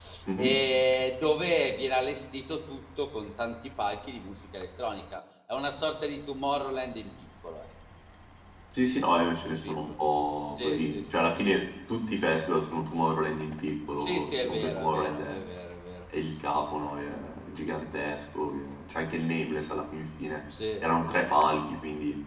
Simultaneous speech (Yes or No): Yes